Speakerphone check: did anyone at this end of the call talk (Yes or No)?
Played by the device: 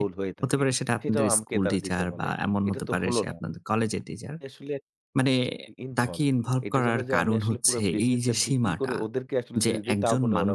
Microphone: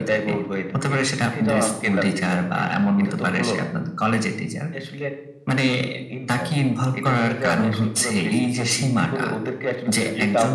No